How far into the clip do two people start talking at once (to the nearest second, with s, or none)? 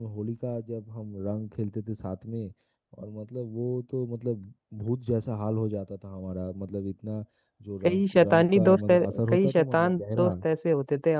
8 s